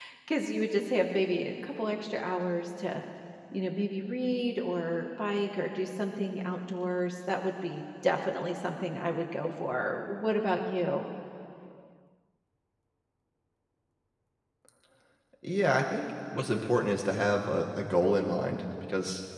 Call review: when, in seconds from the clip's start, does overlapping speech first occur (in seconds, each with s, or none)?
none